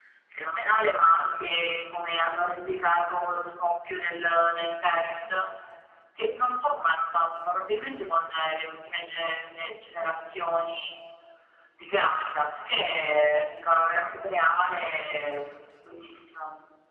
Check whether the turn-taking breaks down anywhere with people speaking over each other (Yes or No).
No